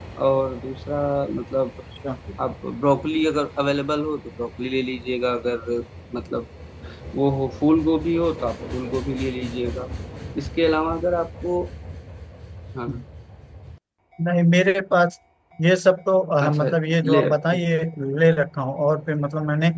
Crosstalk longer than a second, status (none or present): none